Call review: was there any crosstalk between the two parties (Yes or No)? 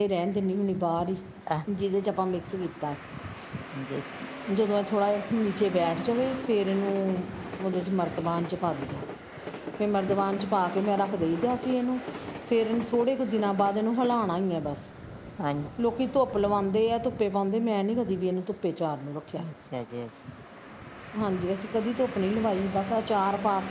No